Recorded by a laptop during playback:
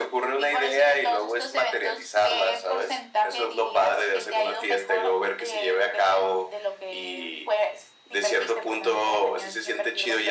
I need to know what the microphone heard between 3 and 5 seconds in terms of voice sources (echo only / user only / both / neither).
echo only